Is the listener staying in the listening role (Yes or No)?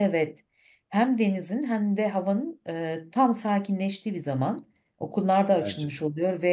Yes